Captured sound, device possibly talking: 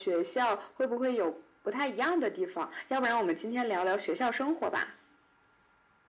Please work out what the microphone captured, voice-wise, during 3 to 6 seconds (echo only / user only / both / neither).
echo only